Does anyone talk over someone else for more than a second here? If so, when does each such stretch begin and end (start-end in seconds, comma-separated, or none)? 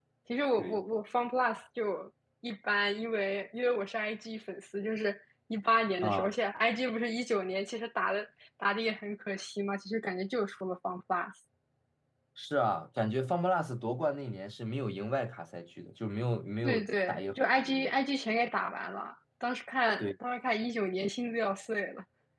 16.6-17.9